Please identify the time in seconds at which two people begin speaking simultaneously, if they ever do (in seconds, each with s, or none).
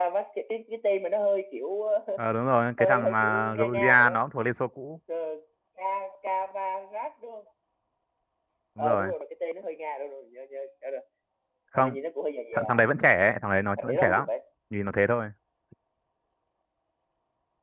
2.8 s